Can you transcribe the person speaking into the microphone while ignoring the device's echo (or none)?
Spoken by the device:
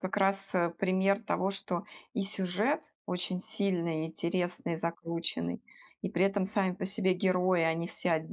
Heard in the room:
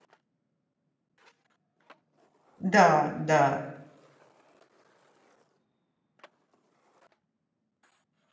Да, да.